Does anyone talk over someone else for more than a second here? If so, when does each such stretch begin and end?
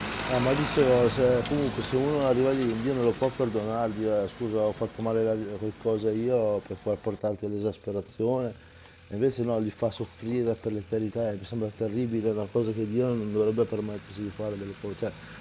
none

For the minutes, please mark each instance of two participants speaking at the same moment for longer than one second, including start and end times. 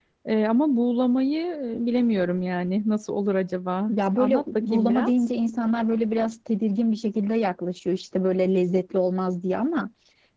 3.9-5.3

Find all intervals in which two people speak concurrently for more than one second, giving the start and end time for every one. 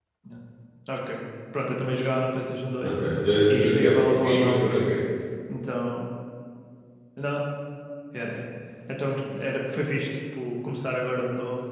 3.5-4.8

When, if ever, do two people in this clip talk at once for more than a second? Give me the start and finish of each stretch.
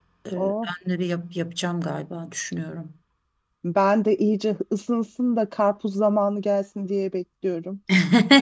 none

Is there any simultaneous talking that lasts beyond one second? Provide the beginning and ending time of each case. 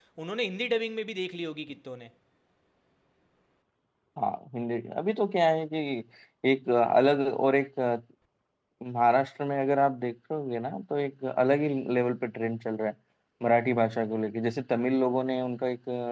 none

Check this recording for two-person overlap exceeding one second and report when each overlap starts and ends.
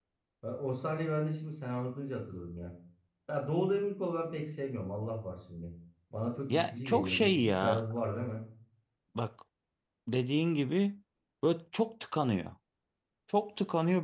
6.5-7.8

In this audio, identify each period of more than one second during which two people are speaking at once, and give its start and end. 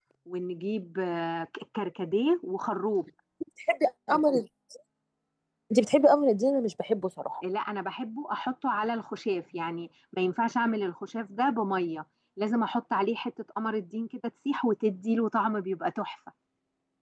none

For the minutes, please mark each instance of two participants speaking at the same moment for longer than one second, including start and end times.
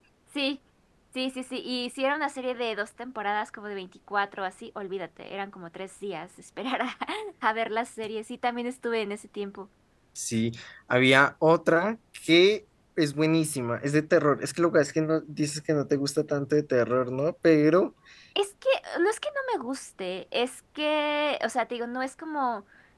none

